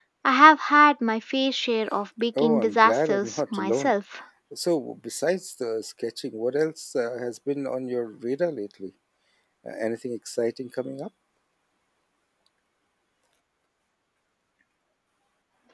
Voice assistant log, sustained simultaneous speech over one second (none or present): present